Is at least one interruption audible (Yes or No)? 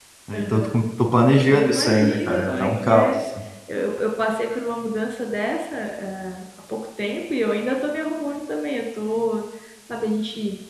Yes